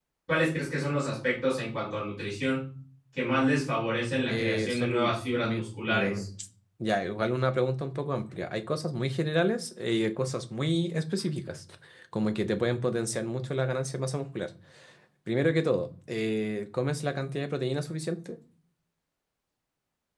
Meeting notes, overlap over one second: present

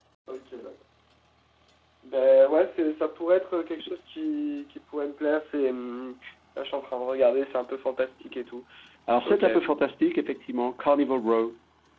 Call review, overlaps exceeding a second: none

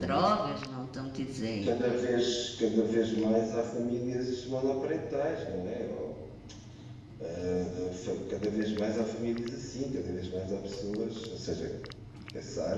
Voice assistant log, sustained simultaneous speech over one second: none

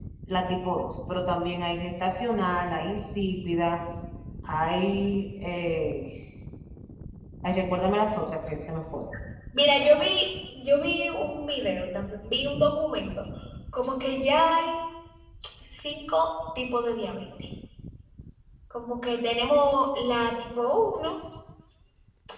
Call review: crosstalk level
none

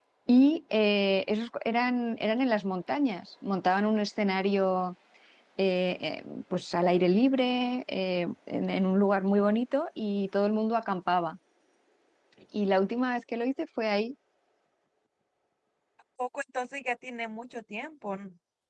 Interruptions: none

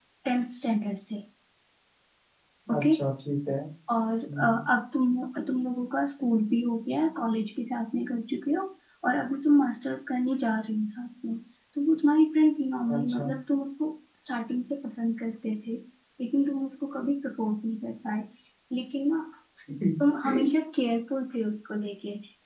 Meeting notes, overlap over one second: none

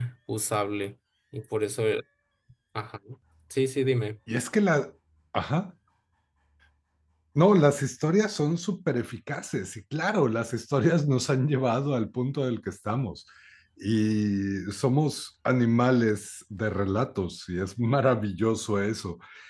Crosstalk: none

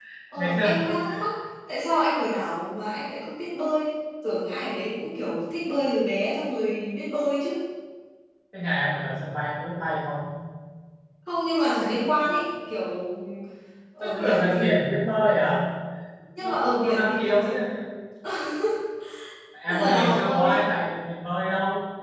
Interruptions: present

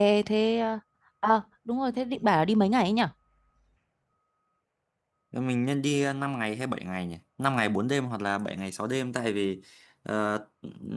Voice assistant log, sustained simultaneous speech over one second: none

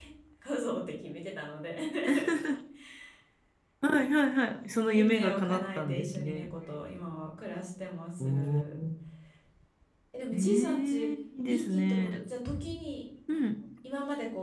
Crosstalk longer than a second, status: present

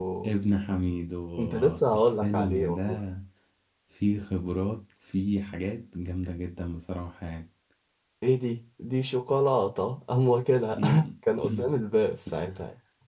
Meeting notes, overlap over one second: present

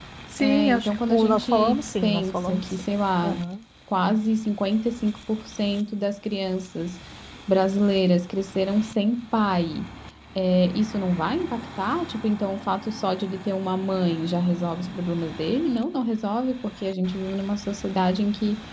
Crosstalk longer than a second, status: present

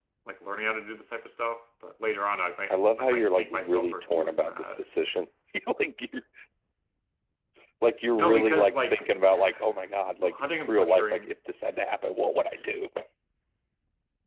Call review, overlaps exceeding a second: present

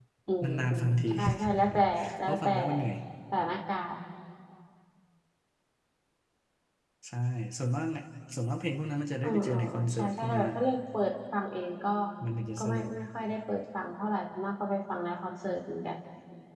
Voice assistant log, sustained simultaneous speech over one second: present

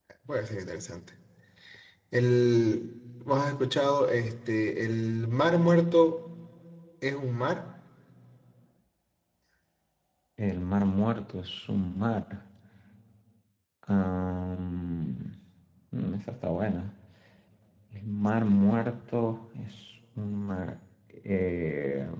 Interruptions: none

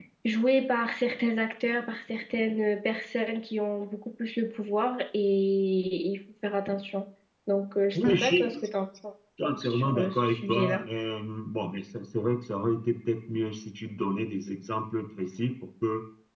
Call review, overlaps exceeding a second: present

